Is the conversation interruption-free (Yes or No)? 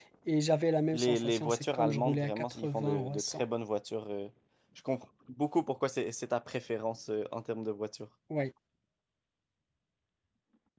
No